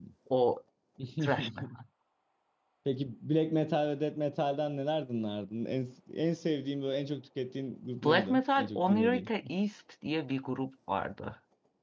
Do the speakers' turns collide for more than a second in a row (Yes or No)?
Yes